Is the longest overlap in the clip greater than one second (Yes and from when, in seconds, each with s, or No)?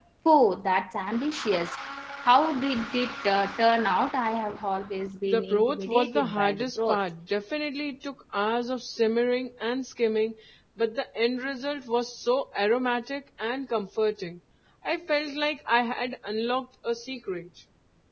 Yes, from 5.3 s